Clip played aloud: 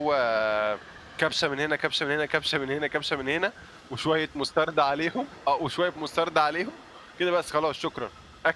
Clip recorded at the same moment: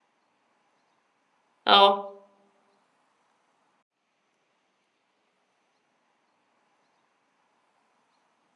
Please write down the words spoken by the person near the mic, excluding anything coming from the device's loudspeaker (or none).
آه،